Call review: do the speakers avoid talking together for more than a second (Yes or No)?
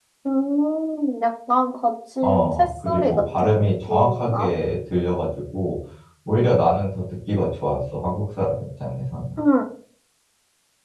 No